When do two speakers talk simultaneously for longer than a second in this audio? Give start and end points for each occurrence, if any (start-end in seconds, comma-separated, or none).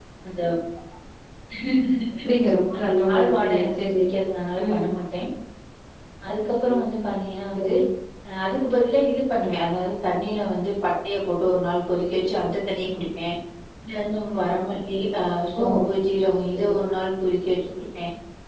2.8-4.0